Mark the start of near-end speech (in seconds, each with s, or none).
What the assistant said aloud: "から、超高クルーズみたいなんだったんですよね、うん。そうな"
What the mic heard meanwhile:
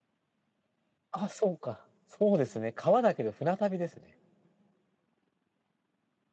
1.1 s